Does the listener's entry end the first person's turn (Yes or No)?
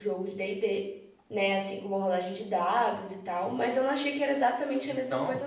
Yes